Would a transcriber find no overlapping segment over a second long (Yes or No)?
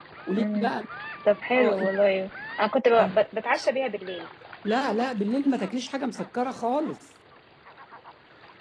Yes